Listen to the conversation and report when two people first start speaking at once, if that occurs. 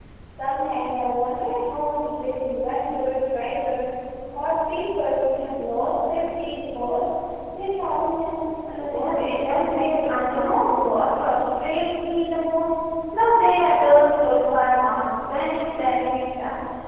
8.9 s

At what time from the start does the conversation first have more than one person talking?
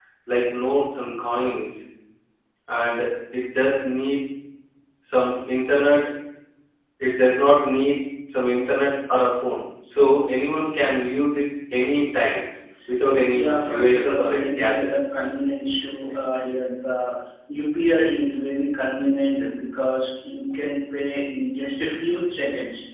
13.3 s

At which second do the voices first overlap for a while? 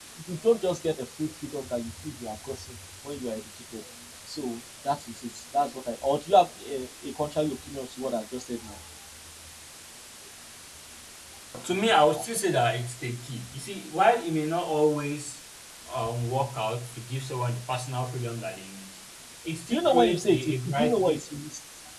19.7 s

